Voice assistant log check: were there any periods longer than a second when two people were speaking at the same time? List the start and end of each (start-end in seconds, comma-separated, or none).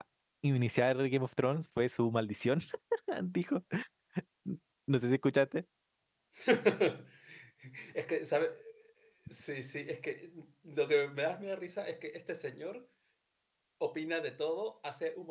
none